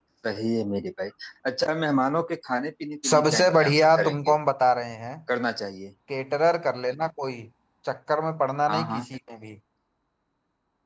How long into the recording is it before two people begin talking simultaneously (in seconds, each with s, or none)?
3.1 s